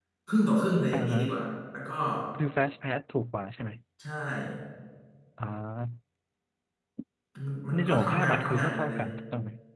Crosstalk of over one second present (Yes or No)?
Yes